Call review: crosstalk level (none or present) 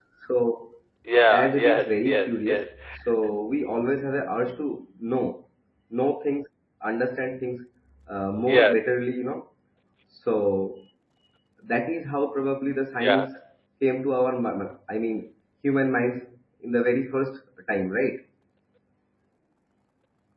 present